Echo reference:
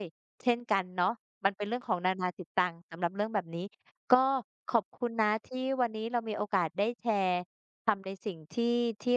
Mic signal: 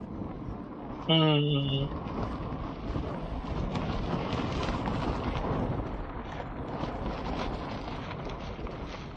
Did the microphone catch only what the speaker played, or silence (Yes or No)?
No